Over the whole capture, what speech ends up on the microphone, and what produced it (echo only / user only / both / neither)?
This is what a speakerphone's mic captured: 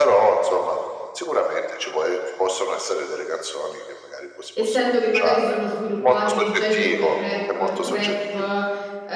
both